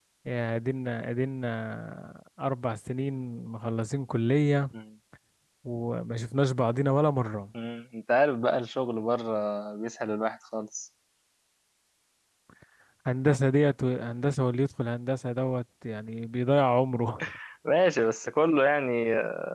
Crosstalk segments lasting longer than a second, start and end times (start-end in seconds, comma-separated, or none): none